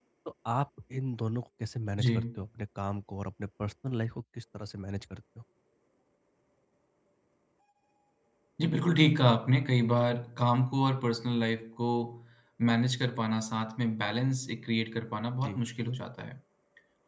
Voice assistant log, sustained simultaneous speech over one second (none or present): none